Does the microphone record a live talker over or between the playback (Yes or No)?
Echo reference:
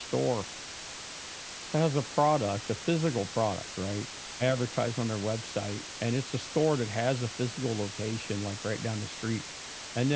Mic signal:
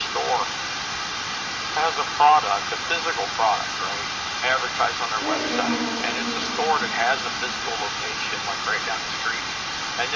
Yes